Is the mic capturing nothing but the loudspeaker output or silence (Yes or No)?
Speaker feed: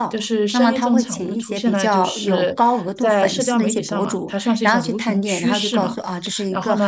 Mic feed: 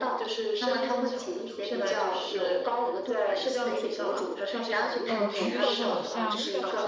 No